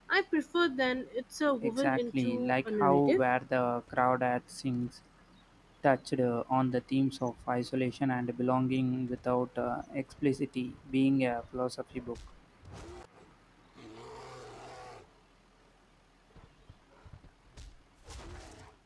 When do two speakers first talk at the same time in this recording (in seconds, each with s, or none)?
1.6 s